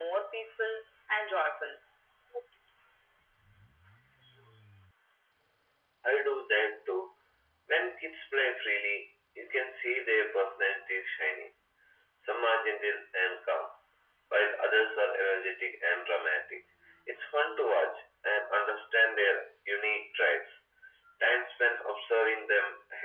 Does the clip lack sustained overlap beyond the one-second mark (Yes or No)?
Yes